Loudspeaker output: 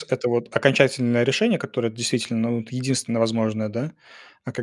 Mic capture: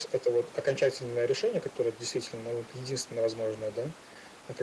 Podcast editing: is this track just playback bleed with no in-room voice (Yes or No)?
Yes